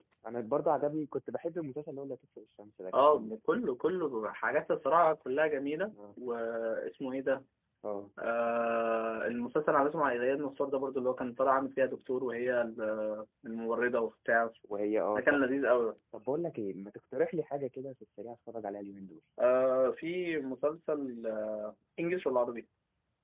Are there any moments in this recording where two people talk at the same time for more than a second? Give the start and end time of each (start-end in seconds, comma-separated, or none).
none